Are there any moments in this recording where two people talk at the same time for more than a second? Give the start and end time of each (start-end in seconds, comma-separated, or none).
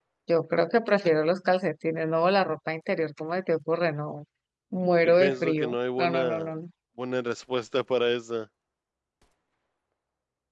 5.0-6.5